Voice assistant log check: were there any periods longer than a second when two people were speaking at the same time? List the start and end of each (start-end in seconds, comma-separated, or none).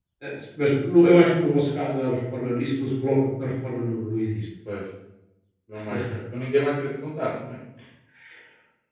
none